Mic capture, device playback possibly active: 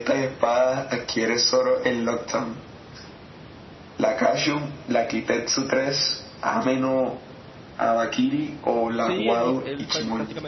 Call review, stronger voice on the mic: echo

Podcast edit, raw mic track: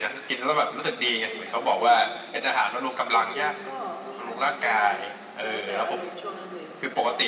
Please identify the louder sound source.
echo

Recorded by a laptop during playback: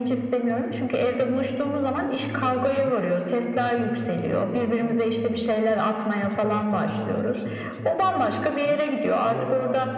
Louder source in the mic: echo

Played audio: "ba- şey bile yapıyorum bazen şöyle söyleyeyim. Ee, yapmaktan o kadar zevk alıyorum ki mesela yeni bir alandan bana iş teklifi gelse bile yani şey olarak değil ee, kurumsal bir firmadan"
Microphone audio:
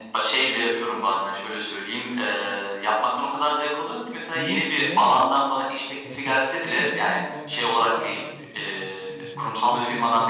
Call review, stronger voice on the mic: echo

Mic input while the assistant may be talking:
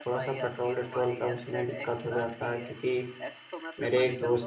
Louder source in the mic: user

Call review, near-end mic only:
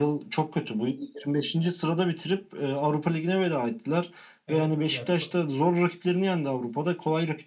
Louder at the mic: echo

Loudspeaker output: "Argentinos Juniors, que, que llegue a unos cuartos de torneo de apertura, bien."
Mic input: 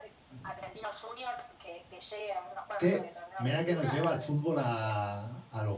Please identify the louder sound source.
user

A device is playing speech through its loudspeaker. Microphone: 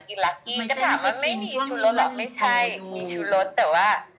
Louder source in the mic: echo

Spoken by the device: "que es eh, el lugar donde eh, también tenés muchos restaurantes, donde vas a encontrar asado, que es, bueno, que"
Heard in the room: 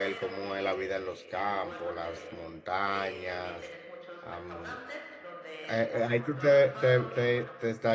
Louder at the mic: user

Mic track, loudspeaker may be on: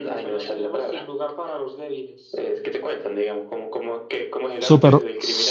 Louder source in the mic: user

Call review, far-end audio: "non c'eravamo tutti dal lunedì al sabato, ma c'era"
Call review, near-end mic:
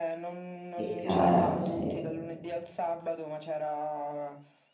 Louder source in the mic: user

